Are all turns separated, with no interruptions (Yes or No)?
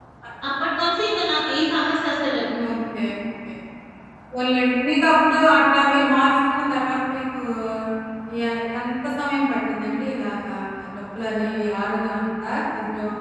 Yes